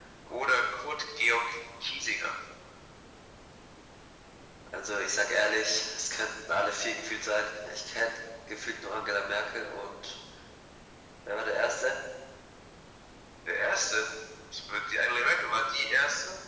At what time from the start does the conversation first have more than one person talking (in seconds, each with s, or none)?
none